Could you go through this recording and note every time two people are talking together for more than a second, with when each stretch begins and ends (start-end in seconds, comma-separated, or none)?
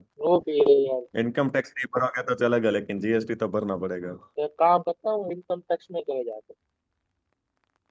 none